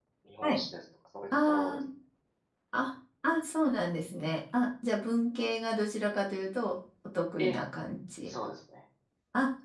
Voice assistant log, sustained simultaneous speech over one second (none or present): none